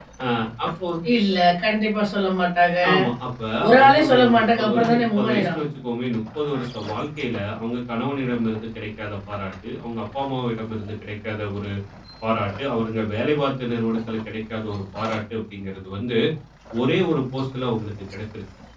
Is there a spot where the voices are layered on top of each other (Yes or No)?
Yes